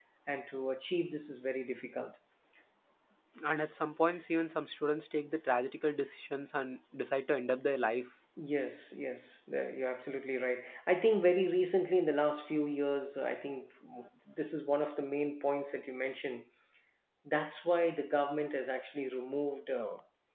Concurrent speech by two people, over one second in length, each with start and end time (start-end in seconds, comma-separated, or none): none